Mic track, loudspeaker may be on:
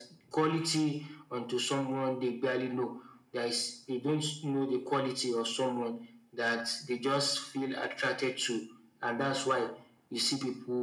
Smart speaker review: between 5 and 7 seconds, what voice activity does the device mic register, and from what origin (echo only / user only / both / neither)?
echo only